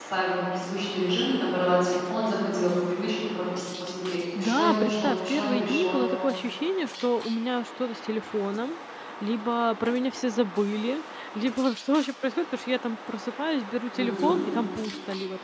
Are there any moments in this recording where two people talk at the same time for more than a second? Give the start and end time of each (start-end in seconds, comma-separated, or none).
4.4-6.0